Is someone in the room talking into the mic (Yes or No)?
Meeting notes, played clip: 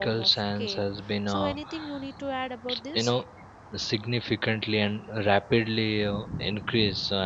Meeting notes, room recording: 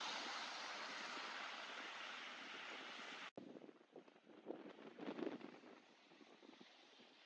No